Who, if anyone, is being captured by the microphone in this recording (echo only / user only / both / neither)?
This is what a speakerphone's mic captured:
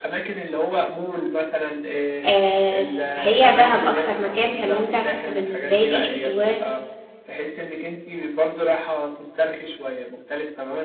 both